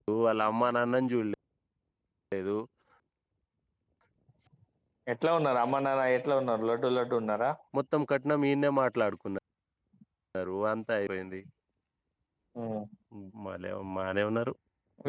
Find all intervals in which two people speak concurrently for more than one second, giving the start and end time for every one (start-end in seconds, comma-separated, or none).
none